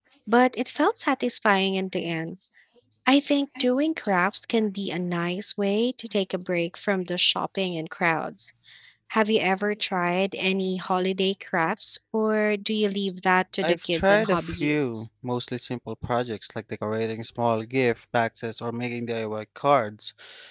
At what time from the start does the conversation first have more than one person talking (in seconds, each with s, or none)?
13.6 s